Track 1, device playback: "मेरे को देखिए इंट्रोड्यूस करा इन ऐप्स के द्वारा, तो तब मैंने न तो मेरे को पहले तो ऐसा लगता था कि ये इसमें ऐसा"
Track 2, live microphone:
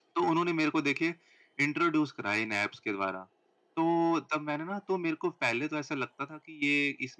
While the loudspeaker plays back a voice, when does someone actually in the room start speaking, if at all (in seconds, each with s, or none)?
none